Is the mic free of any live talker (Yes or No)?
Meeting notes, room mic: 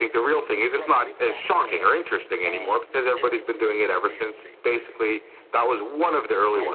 No